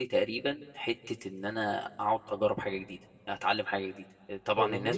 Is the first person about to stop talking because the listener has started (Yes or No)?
No